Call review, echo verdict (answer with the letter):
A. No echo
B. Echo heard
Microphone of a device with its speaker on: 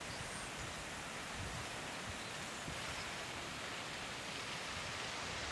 A